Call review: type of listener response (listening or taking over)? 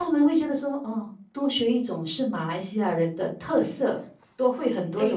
taking over